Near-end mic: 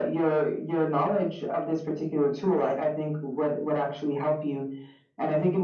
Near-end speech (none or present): none